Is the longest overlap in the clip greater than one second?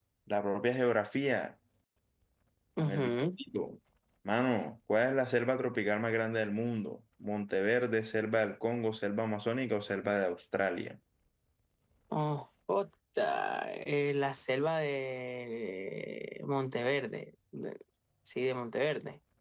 No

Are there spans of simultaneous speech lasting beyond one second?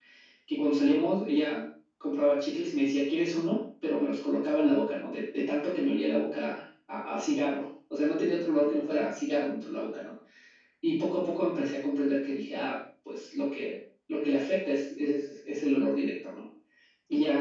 No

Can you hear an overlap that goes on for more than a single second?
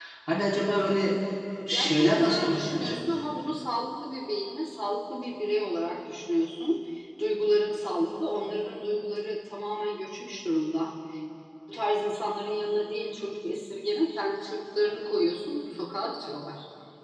Yes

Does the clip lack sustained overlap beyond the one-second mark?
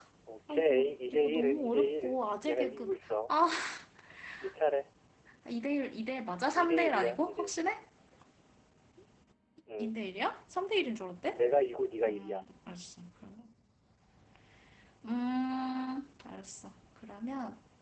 No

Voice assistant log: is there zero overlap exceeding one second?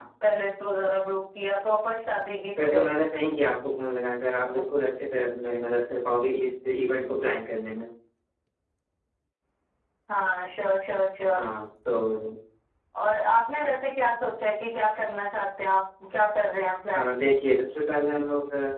Yes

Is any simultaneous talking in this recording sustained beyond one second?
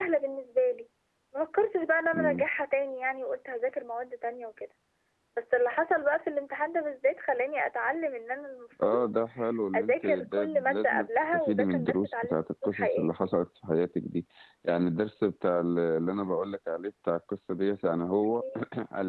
Yes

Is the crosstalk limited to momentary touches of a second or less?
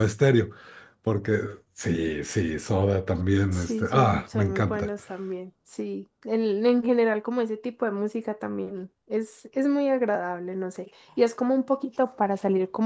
No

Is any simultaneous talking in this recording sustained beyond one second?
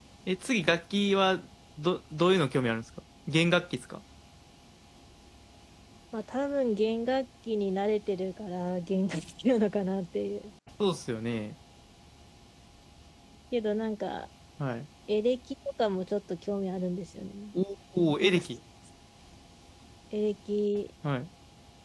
No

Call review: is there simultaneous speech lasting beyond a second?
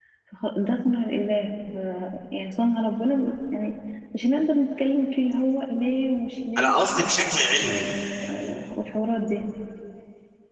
No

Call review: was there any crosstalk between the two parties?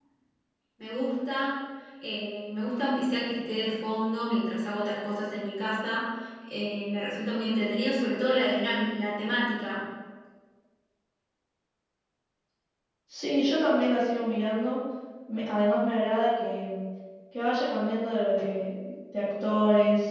No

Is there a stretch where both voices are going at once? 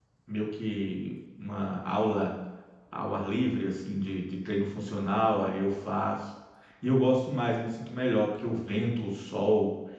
No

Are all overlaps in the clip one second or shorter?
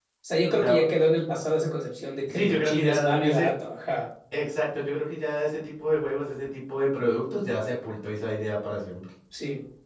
No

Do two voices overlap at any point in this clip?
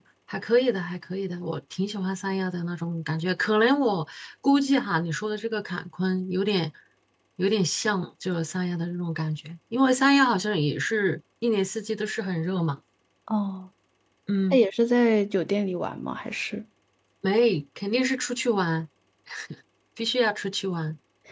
No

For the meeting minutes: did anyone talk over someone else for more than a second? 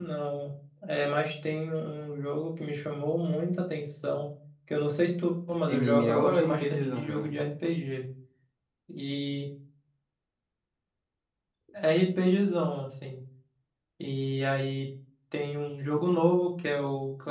Yes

